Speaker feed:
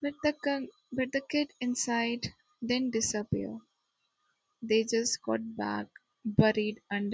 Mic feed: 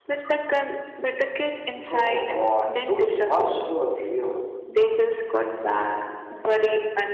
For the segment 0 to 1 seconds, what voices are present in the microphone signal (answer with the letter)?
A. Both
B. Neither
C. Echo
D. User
C